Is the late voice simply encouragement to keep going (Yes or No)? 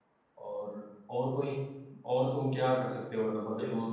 No